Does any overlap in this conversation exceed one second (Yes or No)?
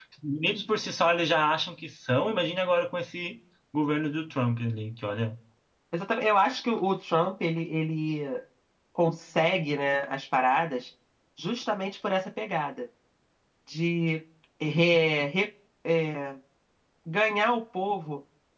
No